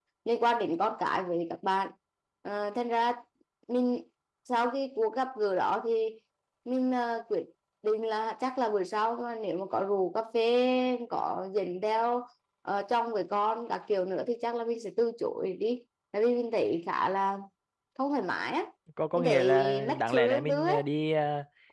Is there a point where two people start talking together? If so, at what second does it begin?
19.1 s

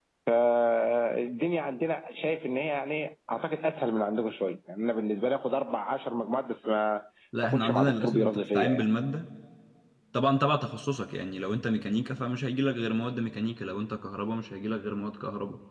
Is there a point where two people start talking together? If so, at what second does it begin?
7.4 s

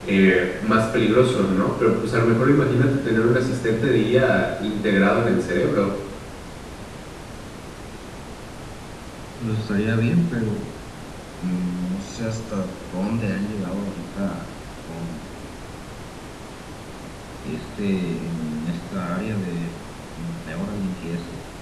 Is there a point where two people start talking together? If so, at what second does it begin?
none

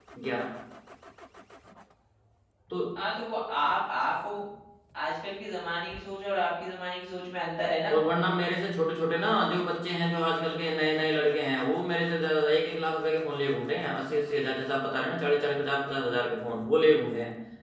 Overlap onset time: none

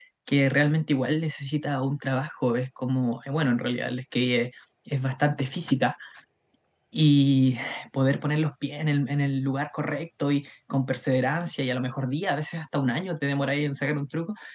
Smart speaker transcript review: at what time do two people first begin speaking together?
none

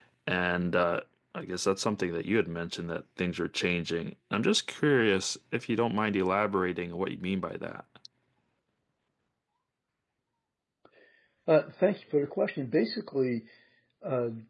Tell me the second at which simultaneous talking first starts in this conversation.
none

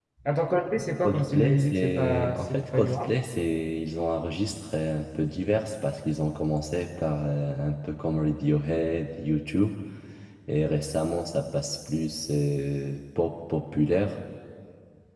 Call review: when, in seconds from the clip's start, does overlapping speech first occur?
1.0 s

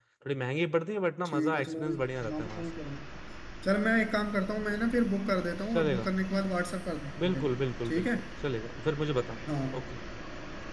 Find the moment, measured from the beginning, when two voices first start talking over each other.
1.3 s

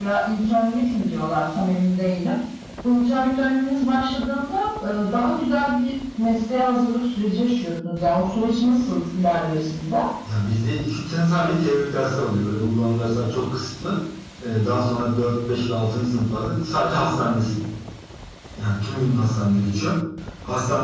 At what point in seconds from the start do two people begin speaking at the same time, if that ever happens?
none

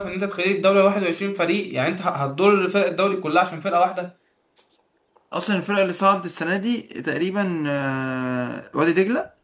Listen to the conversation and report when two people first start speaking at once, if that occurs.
none

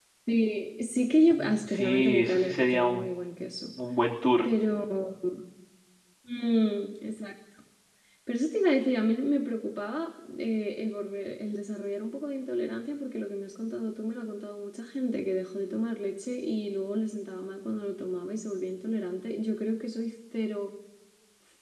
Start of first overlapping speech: 1.3 s

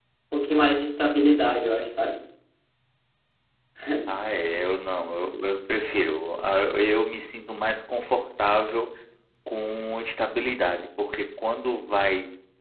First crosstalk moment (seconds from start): none

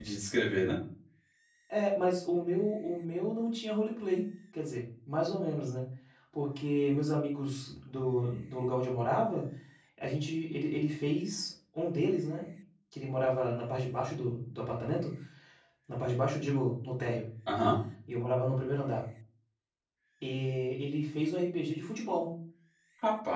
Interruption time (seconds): none

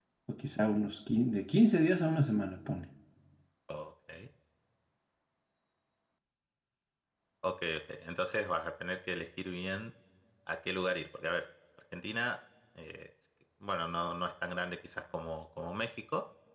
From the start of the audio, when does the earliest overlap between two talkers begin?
none

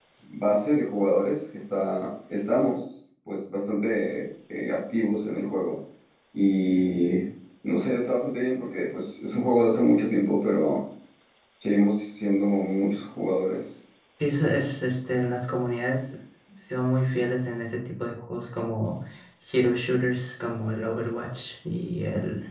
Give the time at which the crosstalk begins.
none

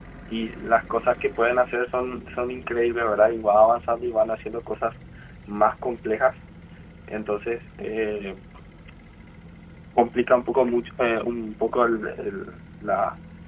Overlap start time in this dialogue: none

